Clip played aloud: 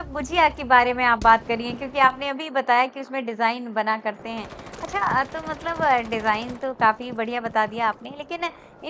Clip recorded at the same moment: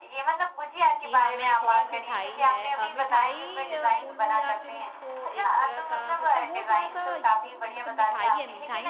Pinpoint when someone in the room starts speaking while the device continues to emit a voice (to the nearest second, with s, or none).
1 s